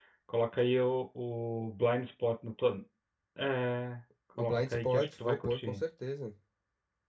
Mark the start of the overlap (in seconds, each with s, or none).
4.4 s